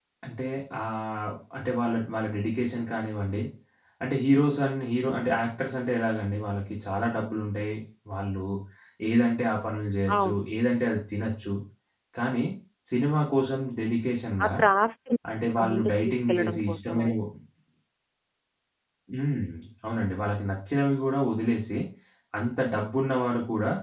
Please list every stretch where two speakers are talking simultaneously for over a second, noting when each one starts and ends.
15.7-17.1

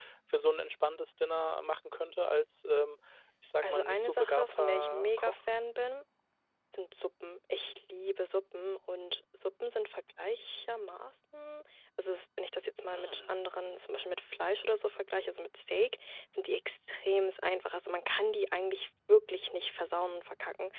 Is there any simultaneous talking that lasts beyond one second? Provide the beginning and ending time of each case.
3.6-5.3

